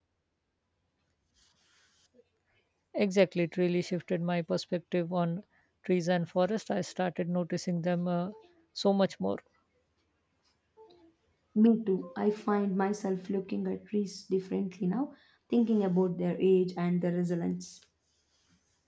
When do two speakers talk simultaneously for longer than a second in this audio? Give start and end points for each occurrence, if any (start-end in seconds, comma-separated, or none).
none